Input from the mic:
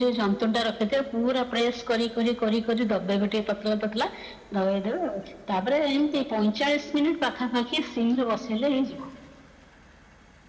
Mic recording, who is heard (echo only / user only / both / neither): echo only